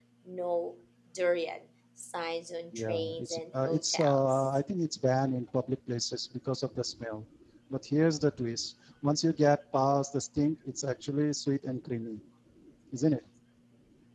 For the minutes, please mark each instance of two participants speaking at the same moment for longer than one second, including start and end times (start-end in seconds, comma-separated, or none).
2.9-4.4